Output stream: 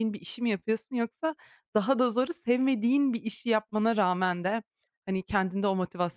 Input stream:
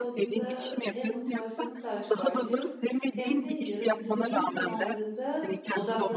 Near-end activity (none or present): present